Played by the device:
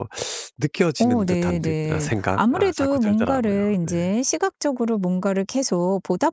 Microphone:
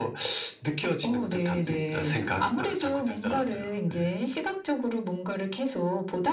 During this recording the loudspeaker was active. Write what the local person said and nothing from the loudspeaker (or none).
none